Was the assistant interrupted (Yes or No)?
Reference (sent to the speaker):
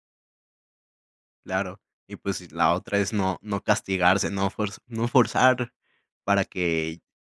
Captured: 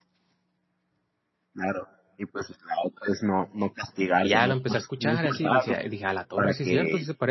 Yes